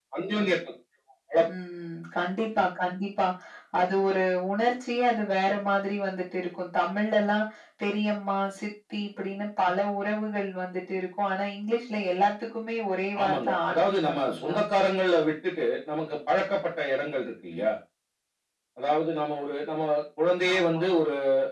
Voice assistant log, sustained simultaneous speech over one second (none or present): present